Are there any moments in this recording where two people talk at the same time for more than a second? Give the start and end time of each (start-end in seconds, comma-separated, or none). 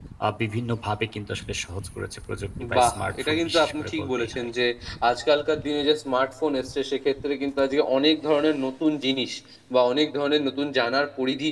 2.8-4.5